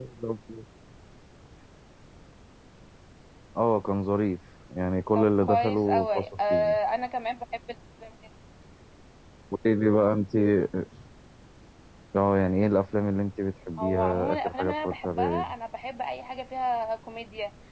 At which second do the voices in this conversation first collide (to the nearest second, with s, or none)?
5 s